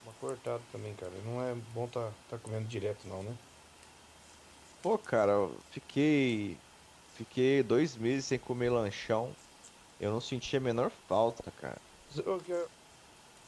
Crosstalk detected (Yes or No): No